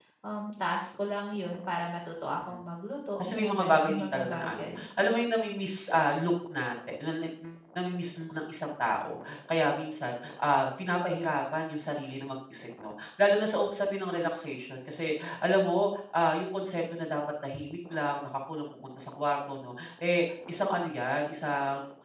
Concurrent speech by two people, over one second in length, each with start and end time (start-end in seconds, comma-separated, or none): 3.2-4.8